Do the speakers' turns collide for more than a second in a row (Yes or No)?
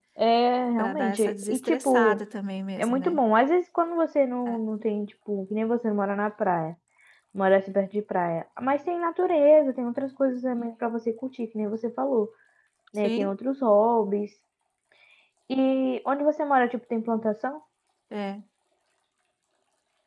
Yes